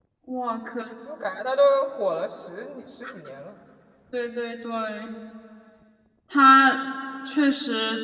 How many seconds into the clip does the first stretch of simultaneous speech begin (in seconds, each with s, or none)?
none